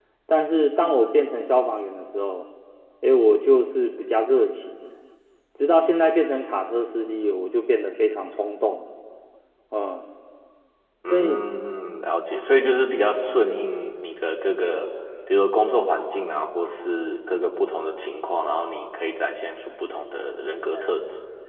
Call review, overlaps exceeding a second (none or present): none